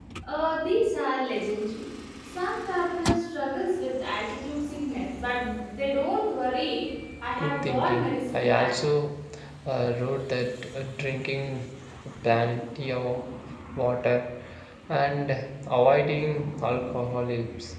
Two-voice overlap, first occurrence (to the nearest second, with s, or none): 7 s